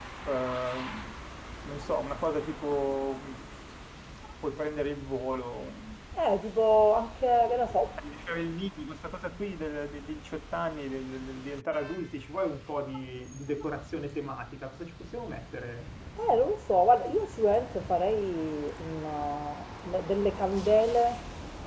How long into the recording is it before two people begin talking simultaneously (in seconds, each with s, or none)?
none